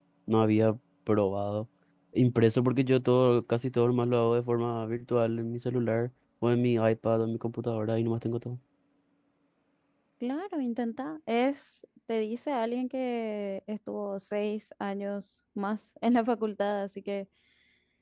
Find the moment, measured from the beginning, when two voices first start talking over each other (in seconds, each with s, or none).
none